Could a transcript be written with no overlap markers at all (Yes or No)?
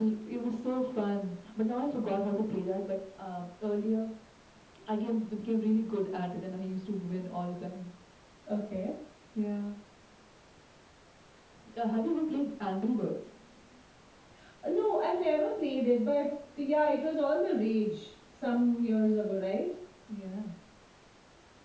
Yes